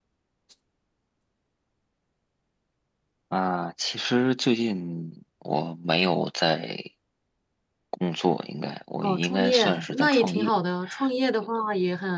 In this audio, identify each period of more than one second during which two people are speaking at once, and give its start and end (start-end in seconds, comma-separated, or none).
9.0-10.5